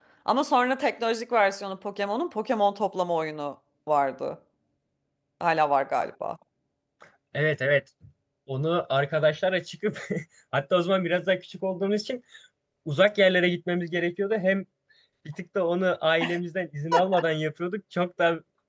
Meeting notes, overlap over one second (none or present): none